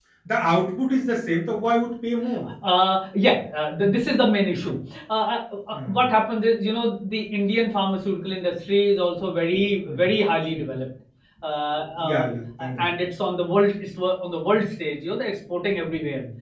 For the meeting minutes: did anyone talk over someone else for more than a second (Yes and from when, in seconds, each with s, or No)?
No